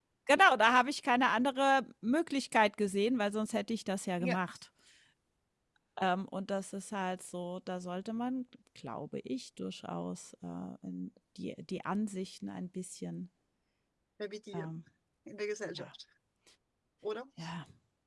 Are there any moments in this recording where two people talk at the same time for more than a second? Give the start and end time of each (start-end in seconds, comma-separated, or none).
none